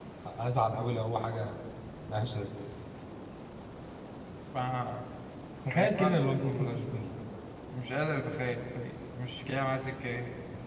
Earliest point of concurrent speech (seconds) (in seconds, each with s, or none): 5.7 s